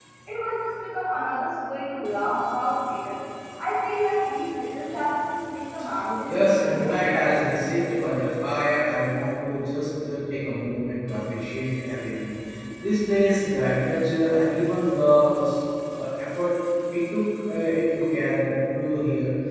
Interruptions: present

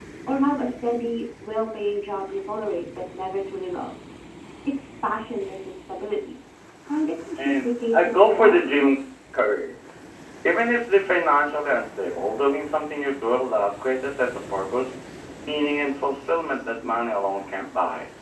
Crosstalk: present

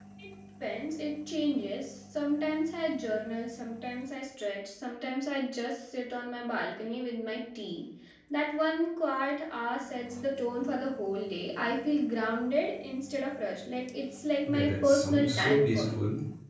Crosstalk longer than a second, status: present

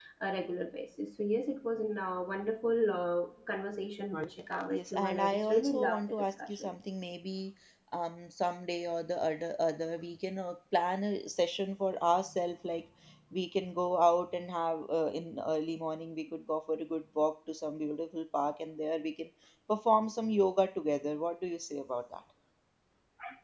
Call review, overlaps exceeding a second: present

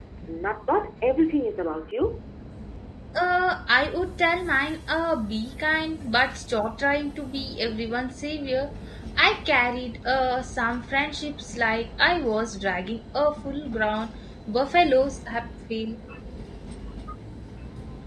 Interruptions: none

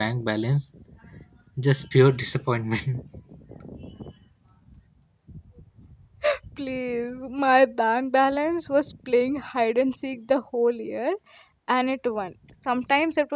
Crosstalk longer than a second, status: none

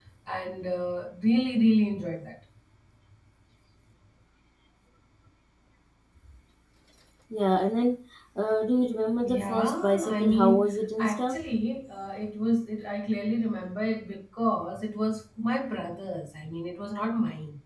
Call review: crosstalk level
present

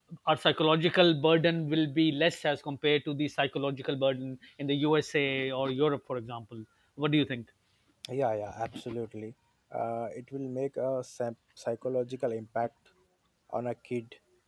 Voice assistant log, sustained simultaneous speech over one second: none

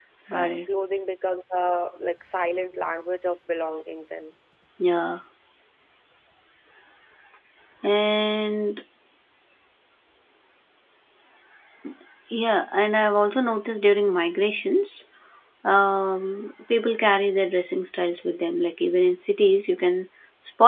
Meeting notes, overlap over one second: none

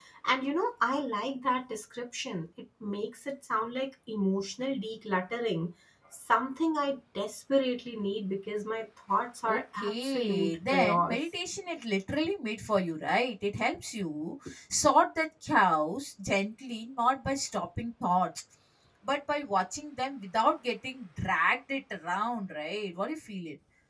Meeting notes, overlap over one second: present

